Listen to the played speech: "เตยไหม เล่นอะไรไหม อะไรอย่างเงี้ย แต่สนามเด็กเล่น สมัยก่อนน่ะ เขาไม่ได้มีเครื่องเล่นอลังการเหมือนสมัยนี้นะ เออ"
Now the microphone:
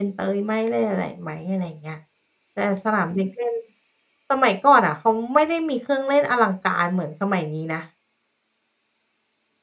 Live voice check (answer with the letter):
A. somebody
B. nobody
B